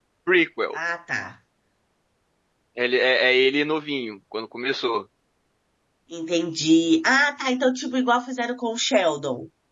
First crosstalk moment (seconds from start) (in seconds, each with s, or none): none